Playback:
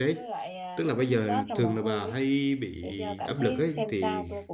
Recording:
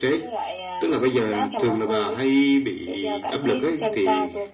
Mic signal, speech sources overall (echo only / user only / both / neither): echo only